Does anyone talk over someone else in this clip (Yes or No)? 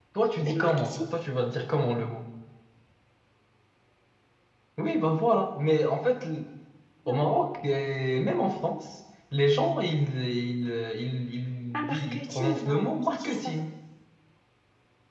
Yes